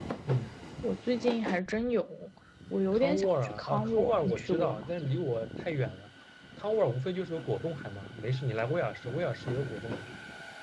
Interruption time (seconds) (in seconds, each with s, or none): 2.9 s